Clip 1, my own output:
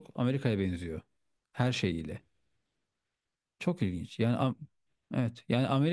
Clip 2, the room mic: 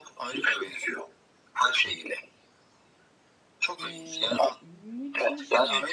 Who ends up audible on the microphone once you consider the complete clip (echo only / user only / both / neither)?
both